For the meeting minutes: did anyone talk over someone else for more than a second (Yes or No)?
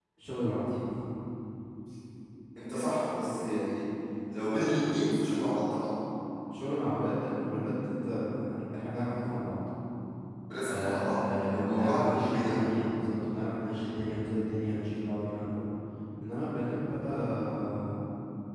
Yes